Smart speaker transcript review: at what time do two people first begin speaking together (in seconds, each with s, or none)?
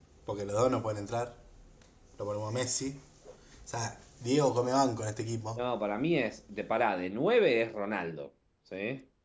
none